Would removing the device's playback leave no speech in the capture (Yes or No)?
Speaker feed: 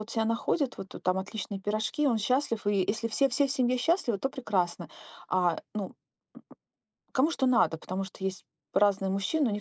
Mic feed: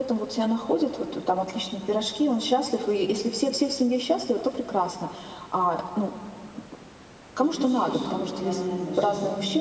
No